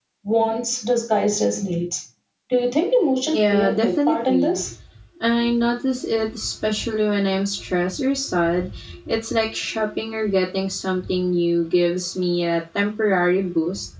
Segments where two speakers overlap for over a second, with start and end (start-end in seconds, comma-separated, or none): 3.3-4.6